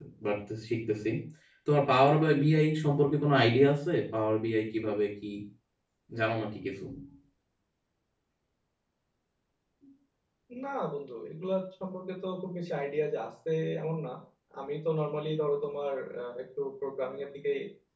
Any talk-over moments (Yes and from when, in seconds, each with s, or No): No